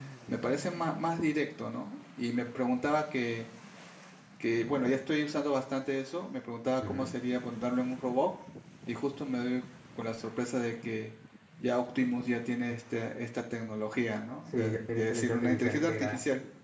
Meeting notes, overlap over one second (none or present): present